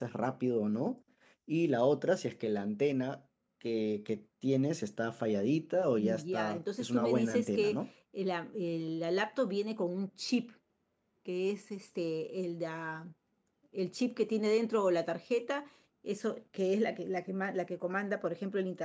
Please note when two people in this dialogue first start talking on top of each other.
6 s

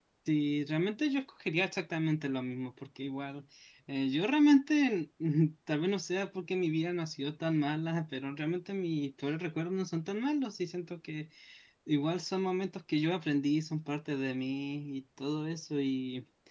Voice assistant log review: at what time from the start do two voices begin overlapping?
none

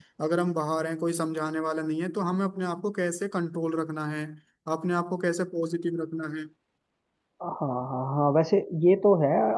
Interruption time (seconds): none

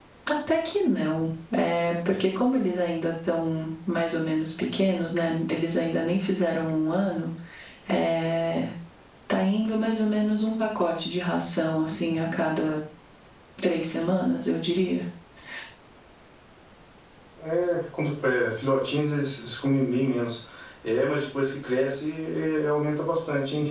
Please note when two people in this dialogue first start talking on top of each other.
none

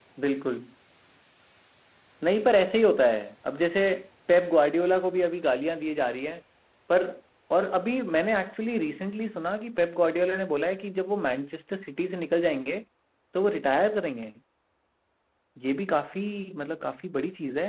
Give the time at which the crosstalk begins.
none

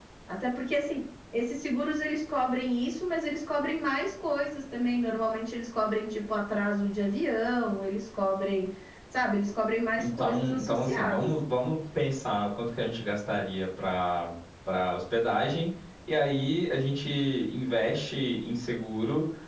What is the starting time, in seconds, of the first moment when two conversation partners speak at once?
10 s

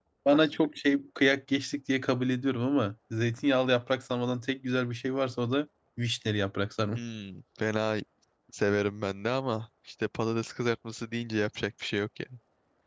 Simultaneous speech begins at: none

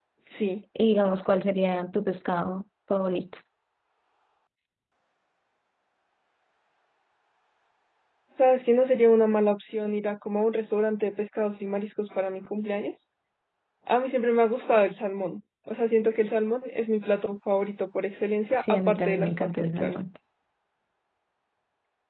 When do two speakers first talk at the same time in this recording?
19 s

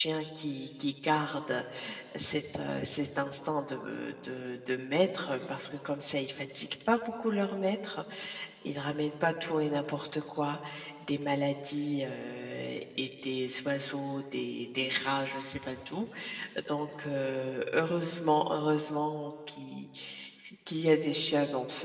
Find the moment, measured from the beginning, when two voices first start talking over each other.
none

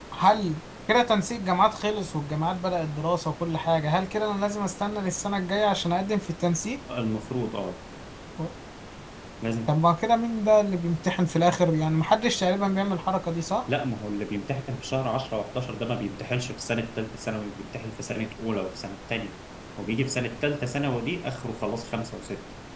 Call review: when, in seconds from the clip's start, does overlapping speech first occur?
none

